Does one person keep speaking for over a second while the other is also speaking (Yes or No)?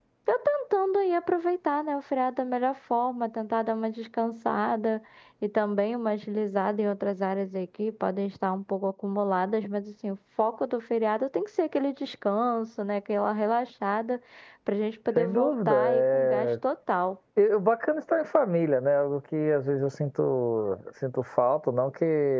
Yes